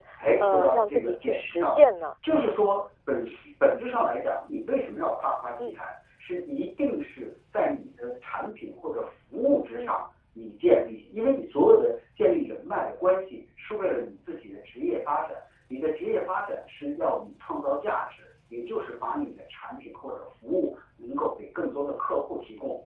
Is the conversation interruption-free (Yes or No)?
No